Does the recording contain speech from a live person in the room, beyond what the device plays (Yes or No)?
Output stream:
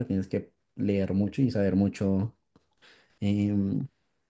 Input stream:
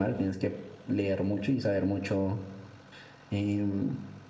No